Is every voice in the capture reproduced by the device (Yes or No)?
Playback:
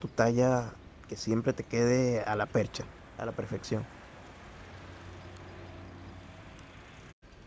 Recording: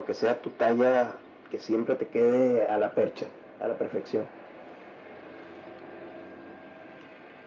Yes